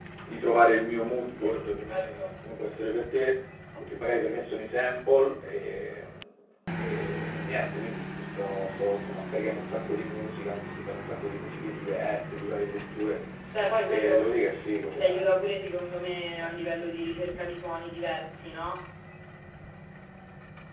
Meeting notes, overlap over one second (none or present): none